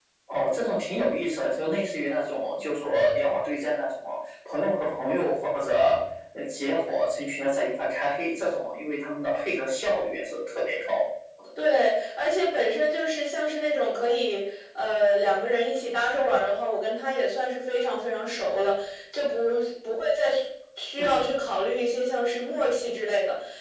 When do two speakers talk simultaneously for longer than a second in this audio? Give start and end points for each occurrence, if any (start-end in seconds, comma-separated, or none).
none